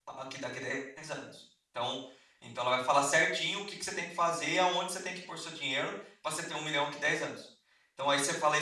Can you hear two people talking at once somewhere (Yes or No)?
No